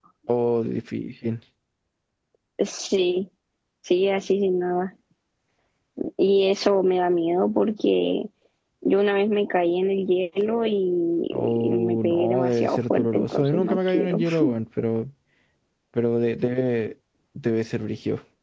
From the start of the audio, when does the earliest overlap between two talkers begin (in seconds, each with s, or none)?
11.3 s